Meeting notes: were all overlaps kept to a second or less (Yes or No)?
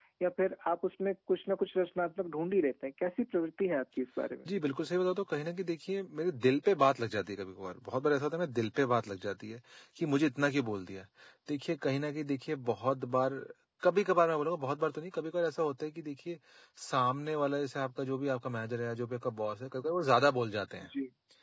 Yes